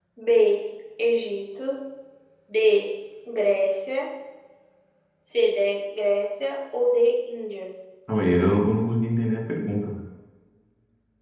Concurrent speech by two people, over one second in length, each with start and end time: none

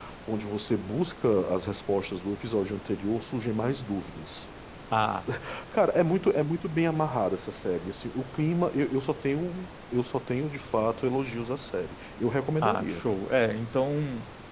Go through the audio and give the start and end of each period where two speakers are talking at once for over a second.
none

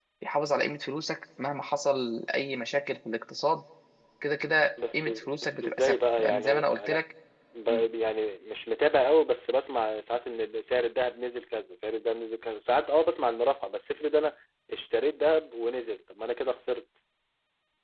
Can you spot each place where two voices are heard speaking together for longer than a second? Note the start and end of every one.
5.0-7.0

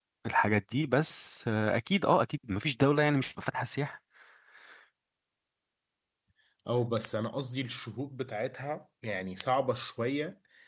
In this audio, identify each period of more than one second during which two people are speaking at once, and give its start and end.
none

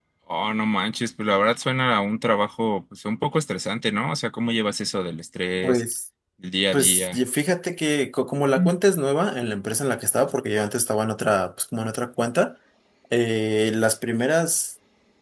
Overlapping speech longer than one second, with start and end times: none

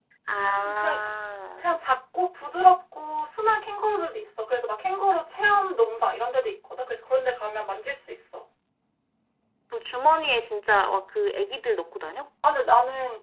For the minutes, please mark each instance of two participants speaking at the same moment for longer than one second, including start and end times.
none

